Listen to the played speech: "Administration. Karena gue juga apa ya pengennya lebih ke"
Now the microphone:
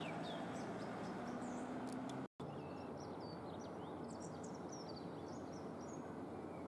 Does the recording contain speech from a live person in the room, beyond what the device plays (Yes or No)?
No